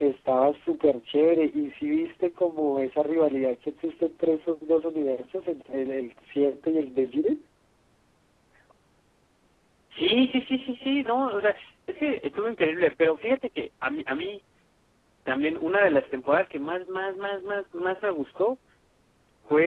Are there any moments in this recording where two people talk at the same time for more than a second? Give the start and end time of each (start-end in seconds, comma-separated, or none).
none